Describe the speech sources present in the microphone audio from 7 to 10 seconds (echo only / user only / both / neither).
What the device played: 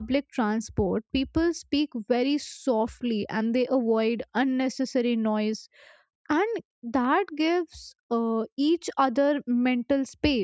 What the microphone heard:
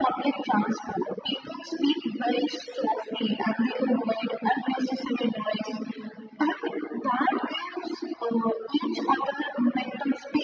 echo only